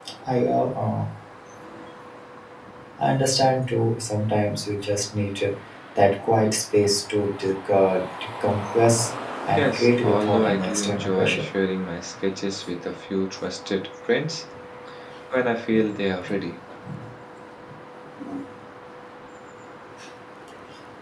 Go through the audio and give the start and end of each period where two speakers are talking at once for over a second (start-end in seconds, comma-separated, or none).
9.6-11.4